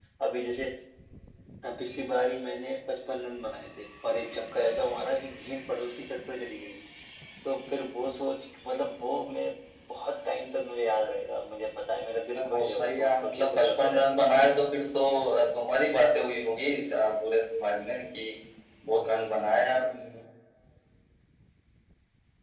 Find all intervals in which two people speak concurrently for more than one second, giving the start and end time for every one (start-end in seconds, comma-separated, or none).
12.3-14.0